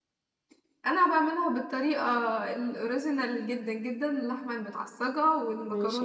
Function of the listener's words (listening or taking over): listening